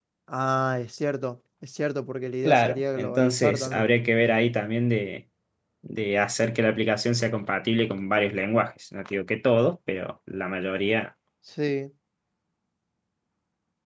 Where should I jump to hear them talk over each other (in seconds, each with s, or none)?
2.4 s